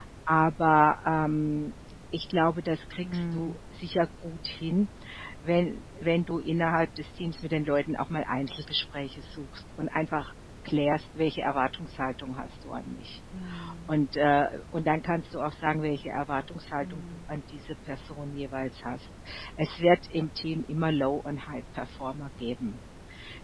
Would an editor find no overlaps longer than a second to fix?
Yes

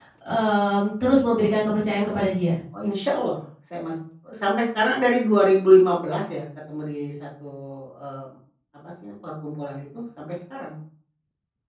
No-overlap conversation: Yes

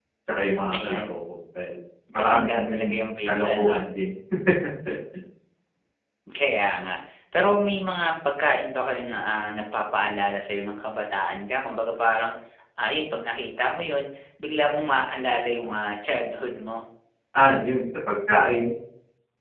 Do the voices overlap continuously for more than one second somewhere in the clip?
Yes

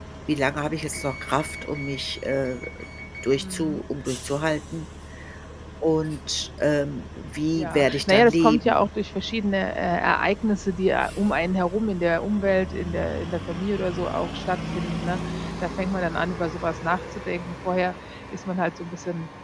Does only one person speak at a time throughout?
No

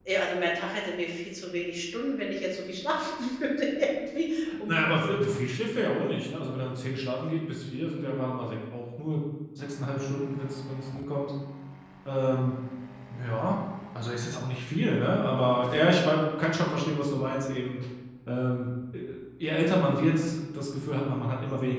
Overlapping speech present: No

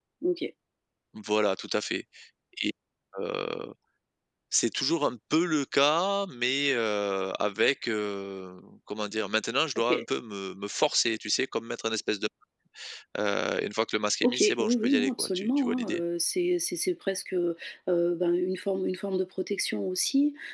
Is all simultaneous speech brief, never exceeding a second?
No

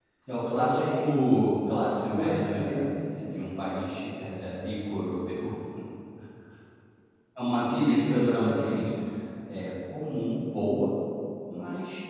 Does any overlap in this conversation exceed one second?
Yes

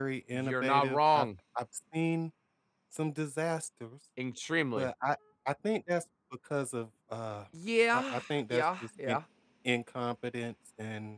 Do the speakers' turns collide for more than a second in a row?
Yes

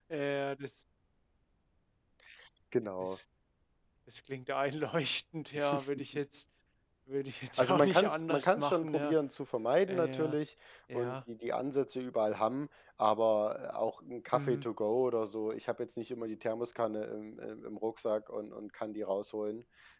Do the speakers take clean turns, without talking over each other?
No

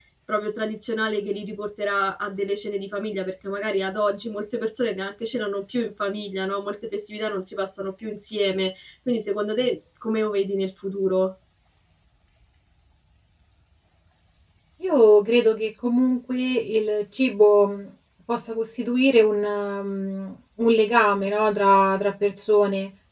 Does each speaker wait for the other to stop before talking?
Yes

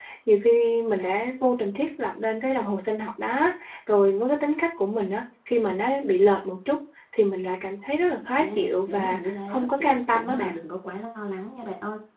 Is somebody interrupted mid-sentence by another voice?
Yes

